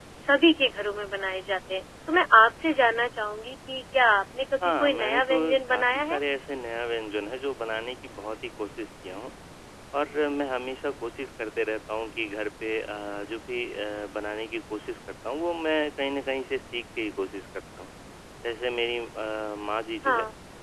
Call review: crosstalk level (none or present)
present